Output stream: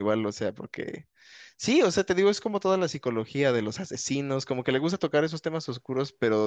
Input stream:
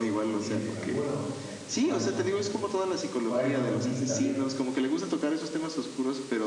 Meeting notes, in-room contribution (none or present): present